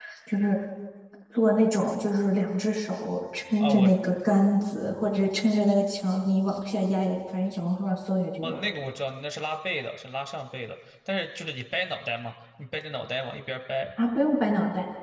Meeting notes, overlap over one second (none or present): none